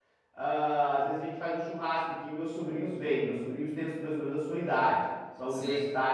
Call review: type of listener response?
listening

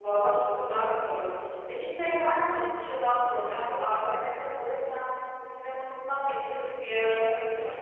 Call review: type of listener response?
taking over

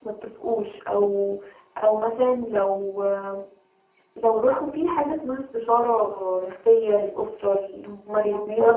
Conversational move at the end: listening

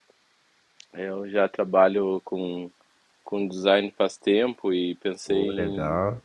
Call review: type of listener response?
listening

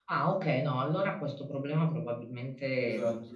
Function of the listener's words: taking over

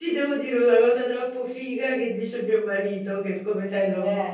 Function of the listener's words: listening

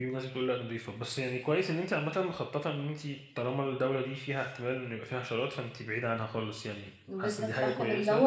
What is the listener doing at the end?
taking over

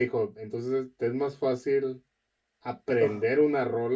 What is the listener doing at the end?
listening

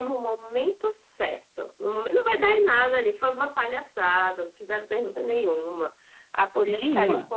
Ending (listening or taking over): listening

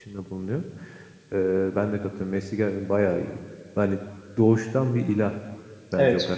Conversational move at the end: listening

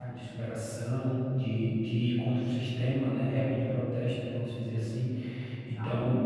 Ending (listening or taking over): listening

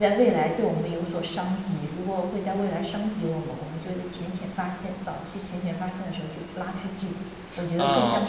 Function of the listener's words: taking over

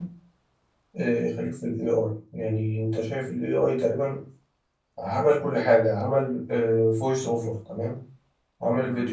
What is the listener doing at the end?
listening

